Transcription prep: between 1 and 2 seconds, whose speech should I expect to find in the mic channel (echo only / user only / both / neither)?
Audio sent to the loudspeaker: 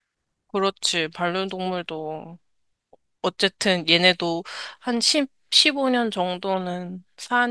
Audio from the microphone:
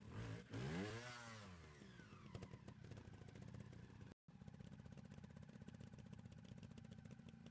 neither